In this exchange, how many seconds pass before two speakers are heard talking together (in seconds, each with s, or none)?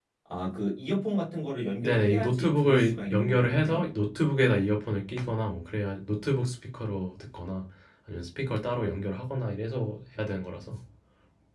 1.8 s